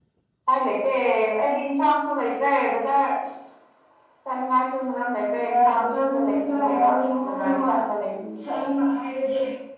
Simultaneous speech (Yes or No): Yes